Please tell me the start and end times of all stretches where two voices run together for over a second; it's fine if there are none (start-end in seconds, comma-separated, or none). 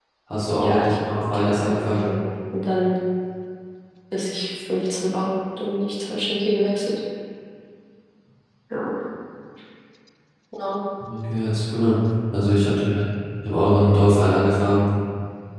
0.6-2.0